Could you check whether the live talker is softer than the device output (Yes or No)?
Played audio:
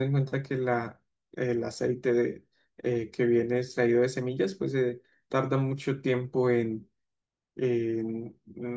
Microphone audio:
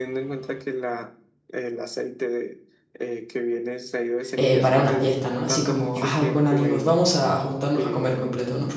No